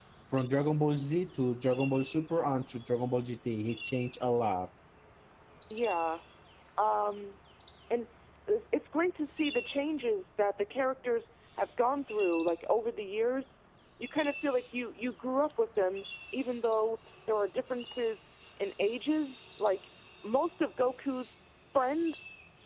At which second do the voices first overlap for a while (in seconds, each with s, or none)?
none